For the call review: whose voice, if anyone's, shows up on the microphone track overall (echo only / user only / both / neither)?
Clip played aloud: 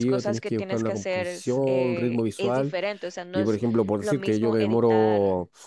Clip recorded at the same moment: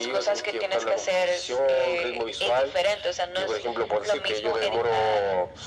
echo only